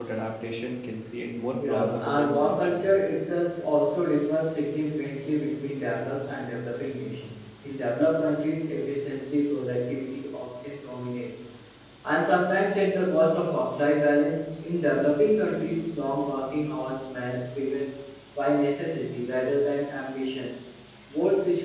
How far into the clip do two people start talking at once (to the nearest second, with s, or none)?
2 s